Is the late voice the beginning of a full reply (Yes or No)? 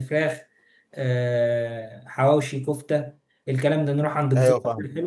No